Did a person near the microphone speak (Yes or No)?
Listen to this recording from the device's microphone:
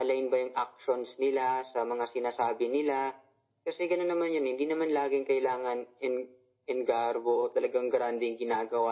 No